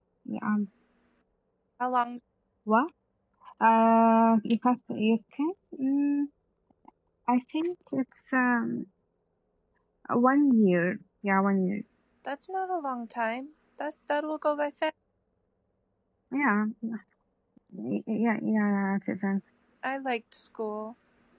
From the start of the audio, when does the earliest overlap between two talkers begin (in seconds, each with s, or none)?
none